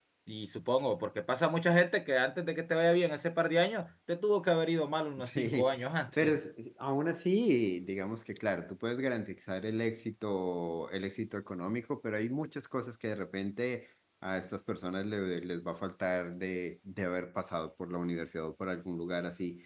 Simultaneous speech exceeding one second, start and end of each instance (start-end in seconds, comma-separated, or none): none